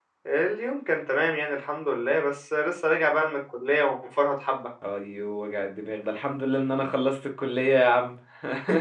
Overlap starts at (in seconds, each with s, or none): none